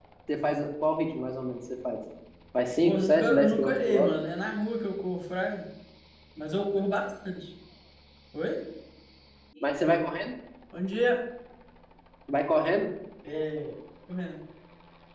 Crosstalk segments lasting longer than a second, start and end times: 2.9-4.1

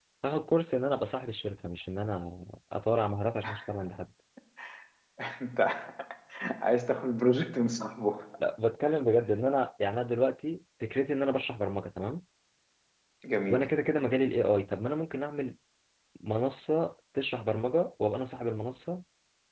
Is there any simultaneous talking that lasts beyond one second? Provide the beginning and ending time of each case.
none

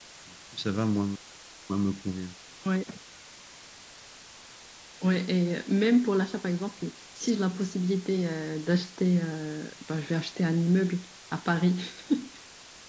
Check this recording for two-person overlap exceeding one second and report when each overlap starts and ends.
none

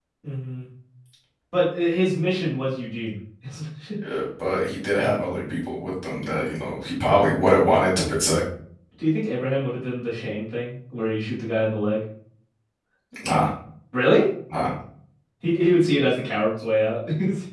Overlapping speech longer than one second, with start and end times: none

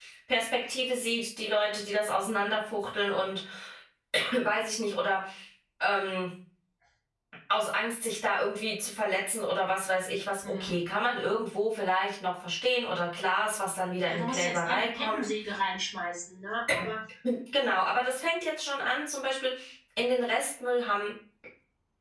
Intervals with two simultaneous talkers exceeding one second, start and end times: 14.0-15.2

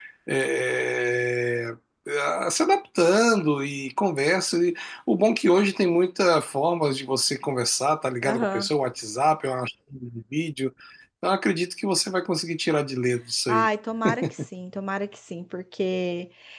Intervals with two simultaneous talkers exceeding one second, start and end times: none

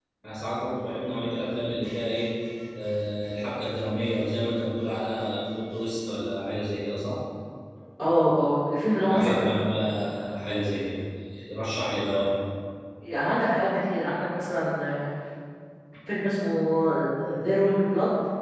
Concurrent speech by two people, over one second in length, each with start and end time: none

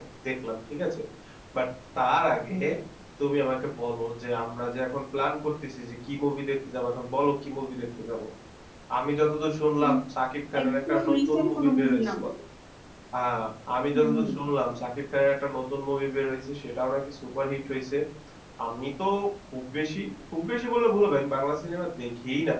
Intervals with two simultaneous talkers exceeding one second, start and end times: 10.6-12.2

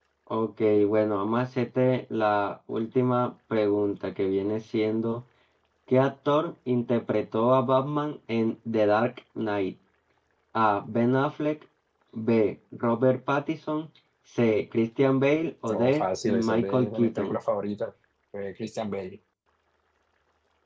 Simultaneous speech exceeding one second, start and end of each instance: 15.7-17.4

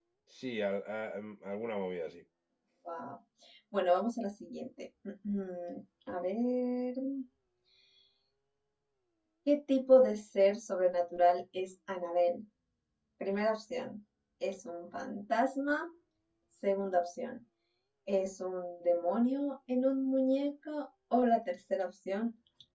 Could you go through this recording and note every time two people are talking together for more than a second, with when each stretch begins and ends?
none

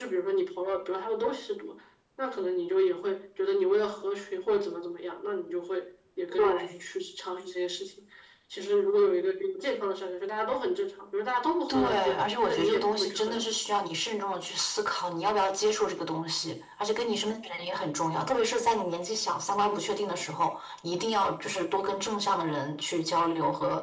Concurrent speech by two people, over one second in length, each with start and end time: 11.7-13.4

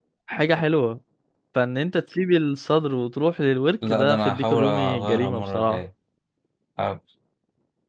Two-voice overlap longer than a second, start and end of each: 3.9-5.8

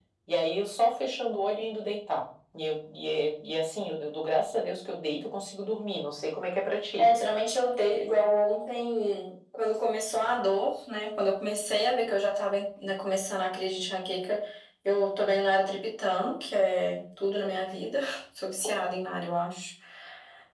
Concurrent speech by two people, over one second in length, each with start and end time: none

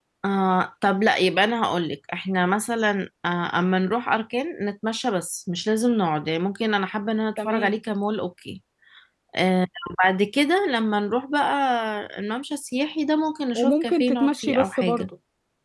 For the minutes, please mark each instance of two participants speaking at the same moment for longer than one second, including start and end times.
13.6-15.1

